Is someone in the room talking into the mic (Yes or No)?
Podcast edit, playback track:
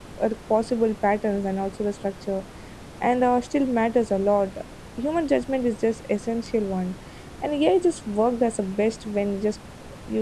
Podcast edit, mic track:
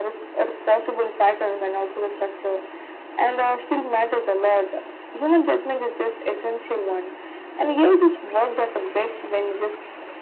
No